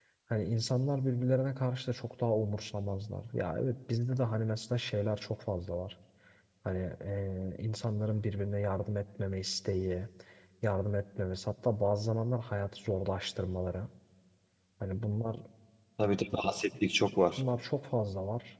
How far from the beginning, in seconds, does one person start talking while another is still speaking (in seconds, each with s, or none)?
none